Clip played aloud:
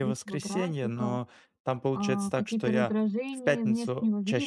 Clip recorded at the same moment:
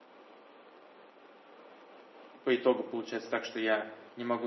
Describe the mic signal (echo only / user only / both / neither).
user only